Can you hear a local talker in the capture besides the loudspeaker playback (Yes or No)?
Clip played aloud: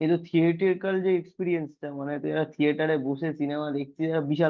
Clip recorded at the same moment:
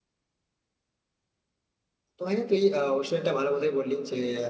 Yes